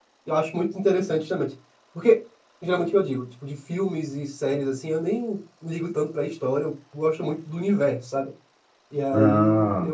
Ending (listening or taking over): listening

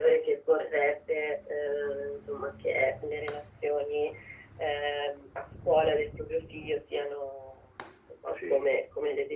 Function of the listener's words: listening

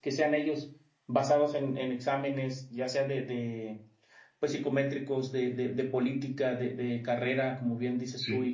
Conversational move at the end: listening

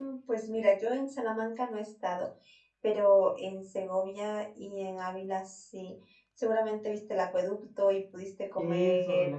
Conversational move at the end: taking over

